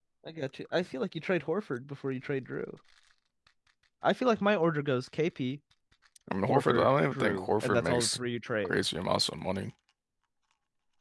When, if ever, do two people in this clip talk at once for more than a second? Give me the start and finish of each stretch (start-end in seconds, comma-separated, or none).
6.5-8.2